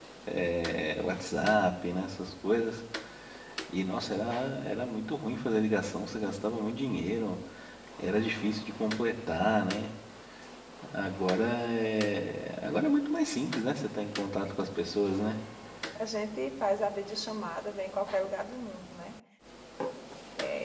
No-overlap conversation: Yes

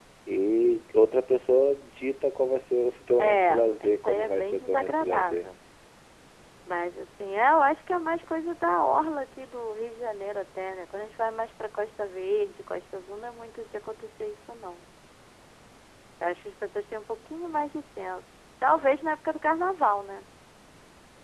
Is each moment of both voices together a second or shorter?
No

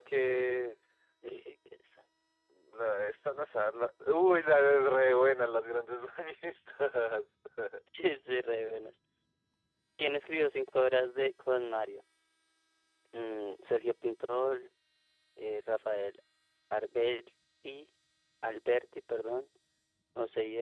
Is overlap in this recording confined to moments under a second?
Yes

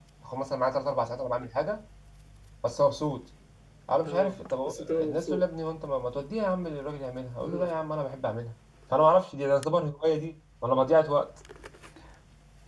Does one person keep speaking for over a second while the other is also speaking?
Yes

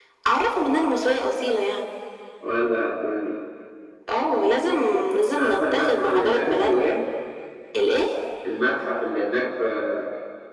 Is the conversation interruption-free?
No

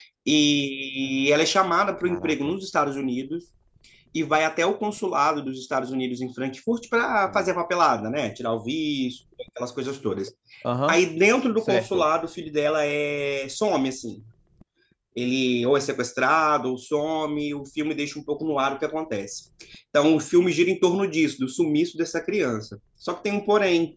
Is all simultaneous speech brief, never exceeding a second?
Yes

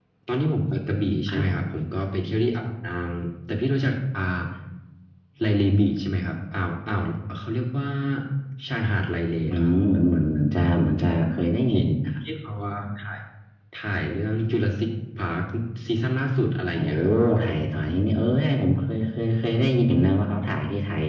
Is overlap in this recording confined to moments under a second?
Yes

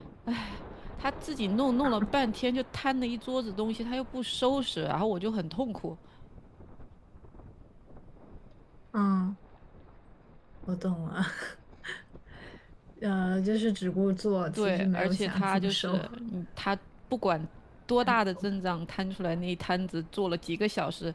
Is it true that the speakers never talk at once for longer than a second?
No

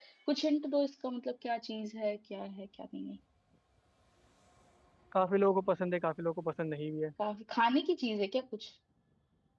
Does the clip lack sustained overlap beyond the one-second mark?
Yes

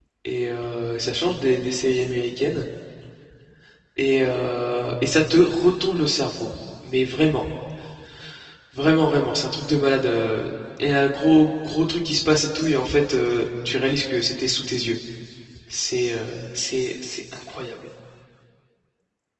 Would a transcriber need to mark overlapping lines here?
No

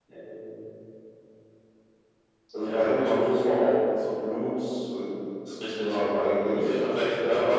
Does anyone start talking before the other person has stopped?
Yes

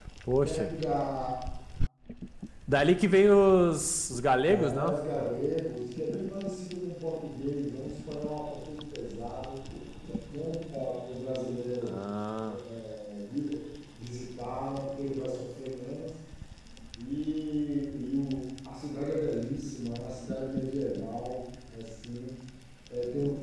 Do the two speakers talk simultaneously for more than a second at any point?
No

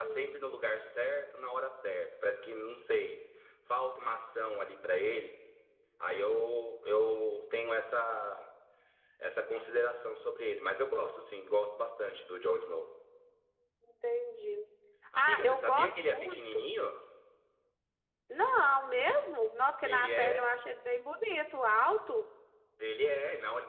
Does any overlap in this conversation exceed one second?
Yes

